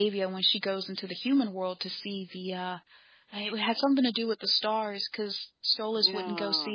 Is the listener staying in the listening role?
Yes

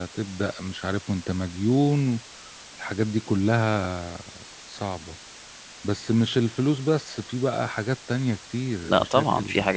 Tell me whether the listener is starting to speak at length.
Yes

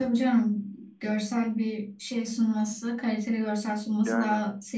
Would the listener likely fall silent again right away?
Yes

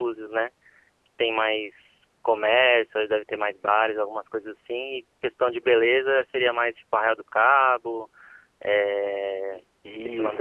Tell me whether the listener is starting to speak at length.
Yes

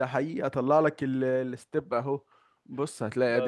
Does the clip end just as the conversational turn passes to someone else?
No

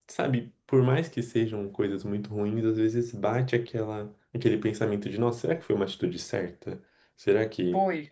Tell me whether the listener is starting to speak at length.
Yes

